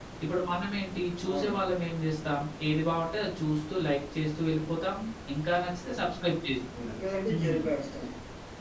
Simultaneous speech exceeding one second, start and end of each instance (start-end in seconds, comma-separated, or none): none